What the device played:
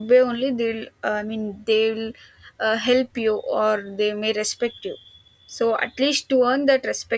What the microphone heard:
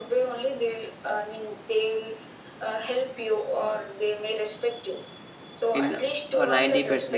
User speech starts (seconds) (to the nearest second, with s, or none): 6 s